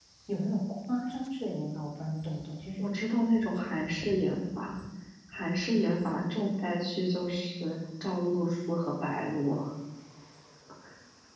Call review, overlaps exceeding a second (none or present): none